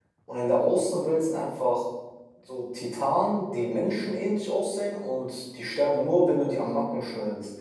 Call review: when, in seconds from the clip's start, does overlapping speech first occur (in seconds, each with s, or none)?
none